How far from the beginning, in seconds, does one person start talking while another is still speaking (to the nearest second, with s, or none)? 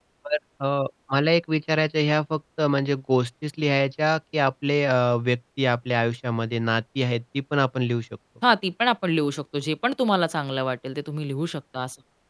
none